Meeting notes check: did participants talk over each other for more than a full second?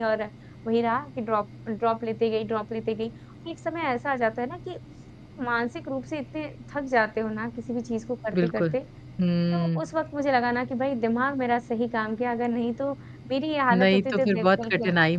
Yes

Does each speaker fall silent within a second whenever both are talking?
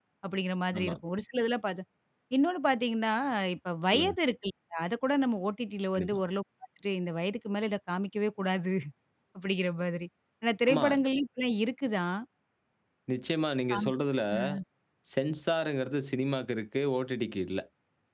Yes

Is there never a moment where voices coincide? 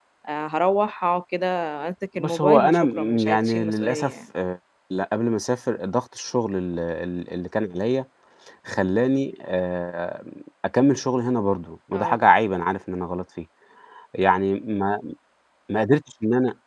No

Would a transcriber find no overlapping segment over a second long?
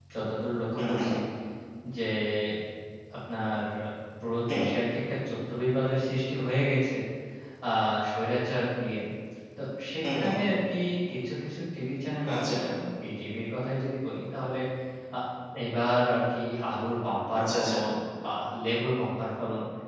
Yes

